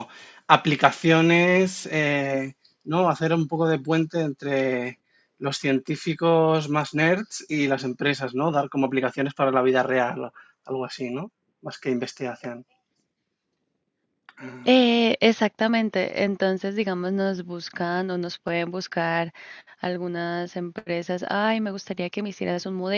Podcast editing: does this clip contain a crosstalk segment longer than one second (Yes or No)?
No